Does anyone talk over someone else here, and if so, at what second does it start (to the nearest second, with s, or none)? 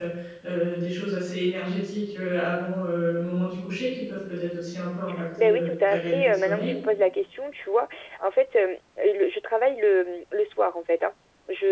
5 s